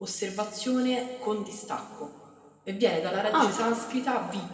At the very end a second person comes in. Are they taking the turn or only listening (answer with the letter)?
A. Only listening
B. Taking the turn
A